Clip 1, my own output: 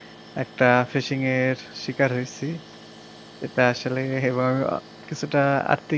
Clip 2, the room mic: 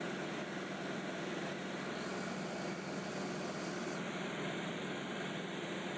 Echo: none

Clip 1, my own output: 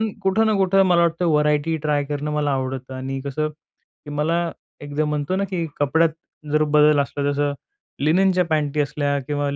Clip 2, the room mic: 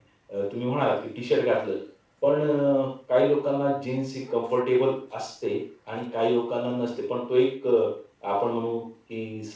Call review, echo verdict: none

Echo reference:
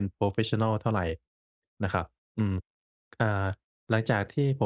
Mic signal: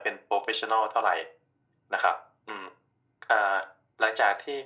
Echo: present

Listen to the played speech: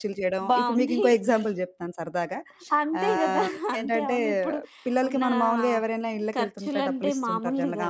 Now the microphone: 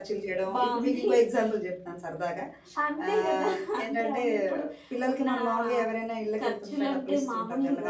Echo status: present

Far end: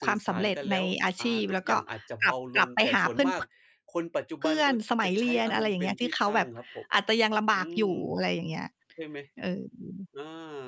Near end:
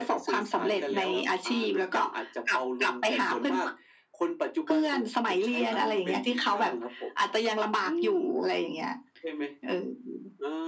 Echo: present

